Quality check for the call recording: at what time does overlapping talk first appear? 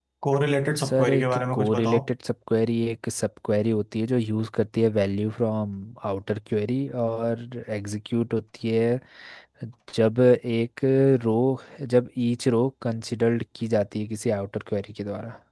0.8 s

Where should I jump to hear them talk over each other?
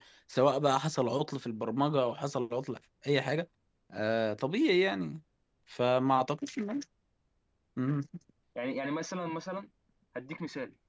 none

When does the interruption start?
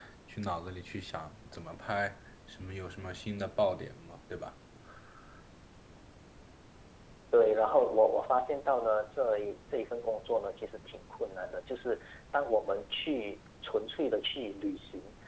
none

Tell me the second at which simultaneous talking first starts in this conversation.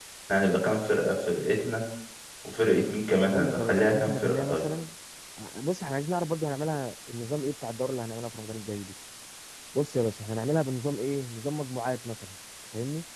3.3 s

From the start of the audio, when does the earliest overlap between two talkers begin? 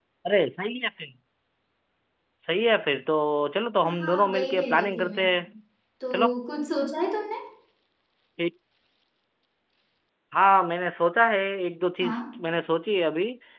4.0 s

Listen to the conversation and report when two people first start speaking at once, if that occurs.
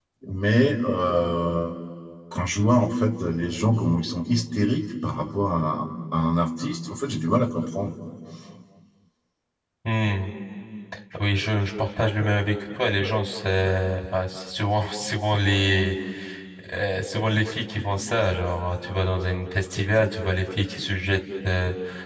none

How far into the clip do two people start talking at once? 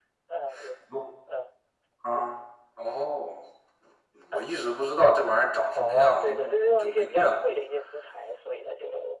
5.7 s

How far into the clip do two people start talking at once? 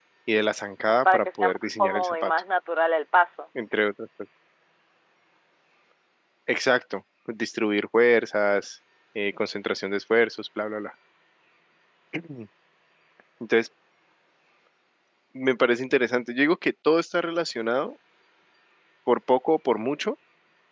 0.9 s

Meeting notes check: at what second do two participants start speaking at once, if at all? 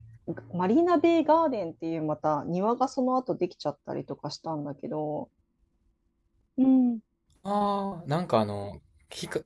none

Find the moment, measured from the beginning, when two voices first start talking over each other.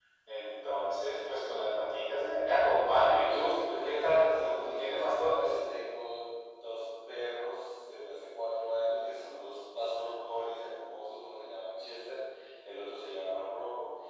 3.2 s

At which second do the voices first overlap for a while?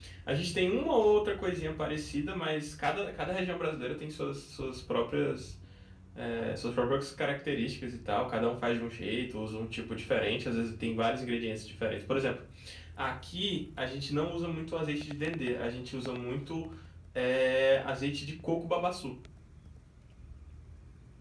none

